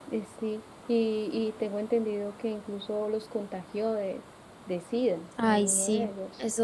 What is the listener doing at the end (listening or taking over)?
taking over